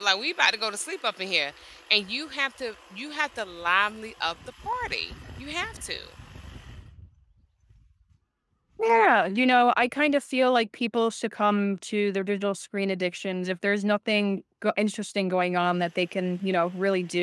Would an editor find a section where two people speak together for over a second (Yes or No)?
No